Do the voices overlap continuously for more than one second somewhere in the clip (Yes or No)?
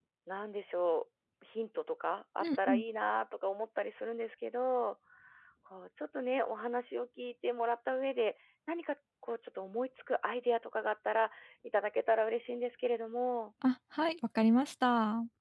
No